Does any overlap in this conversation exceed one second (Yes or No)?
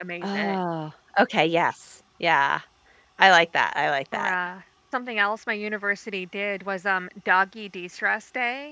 No